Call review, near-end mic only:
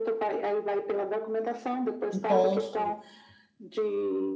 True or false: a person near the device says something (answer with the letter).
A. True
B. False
A